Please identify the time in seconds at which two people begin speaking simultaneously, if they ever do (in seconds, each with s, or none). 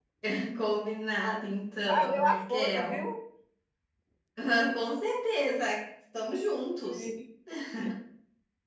1.9 s